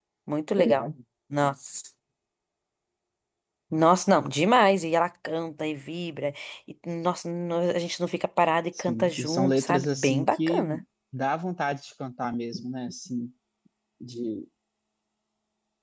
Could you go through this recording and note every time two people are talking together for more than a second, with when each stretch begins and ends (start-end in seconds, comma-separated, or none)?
8.8-10.6